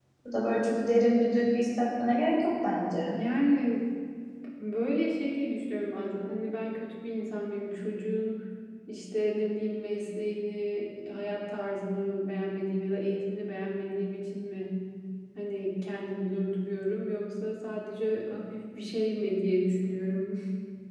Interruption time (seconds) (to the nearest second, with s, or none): none